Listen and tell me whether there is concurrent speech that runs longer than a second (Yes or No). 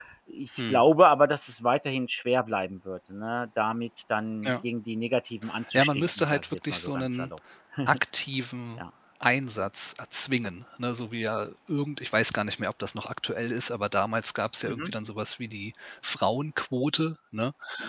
Yes